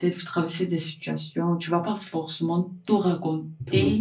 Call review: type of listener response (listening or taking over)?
listening